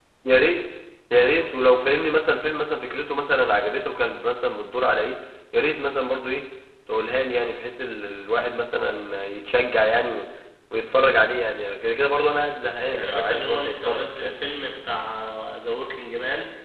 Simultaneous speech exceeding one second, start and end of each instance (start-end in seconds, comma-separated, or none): 12.9-14.4